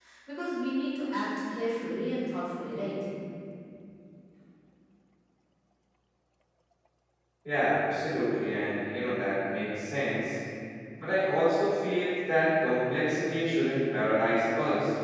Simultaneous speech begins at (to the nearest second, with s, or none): none